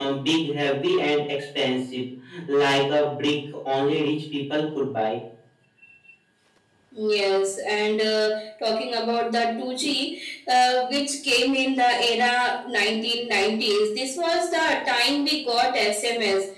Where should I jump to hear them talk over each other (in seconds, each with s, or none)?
none